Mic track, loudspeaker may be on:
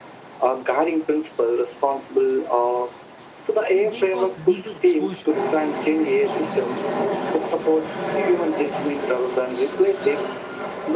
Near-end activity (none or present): present